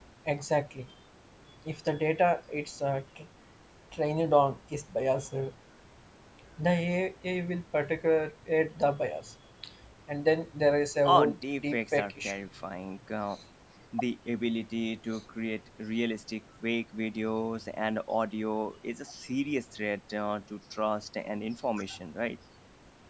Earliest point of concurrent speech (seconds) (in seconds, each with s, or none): 11.0 s